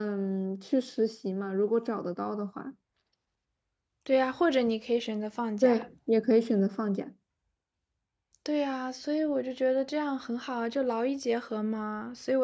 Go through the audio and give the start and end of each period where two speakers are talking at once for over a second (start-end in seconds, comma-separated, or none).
none